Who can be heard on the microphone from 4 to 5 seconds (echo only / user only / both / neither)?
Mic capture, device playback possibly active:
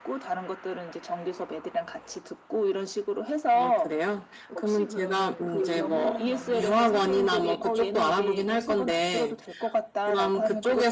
both